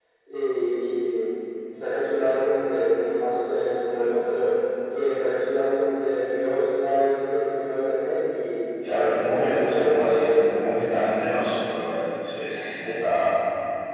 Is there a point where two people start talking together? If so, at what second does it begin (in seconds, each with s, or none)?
8.8 s